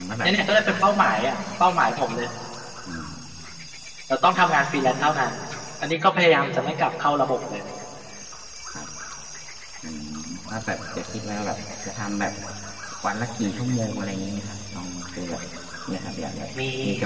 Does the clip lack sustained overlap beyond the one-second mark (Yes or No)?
Yes